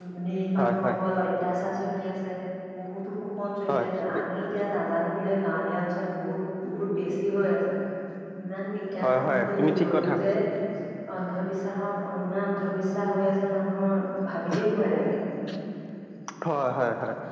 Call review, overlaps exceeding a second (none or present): present